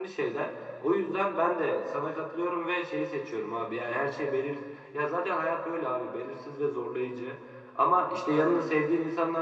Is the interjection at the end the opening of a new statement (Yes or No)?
No